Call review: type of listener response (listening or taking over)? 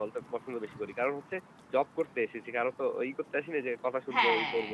taking over